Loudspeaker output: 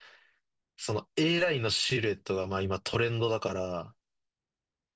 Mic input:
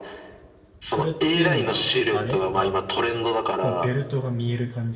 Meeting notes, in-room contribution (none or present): present